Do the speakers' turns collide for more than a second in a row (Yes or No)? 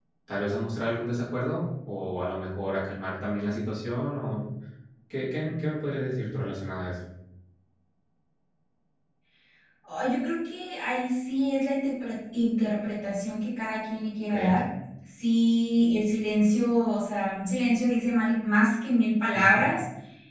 No